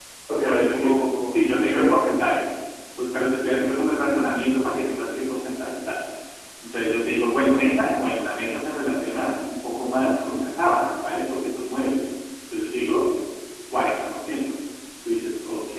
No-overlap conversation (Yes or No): No